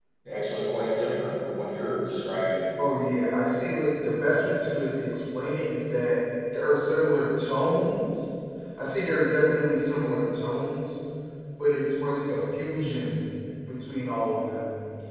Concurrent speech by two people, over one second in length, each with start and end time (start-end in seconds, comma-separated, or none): none